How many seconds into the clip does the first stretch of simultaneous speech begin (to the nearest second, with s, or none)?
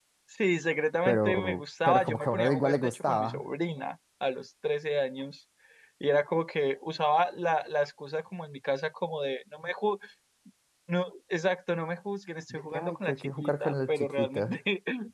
1 s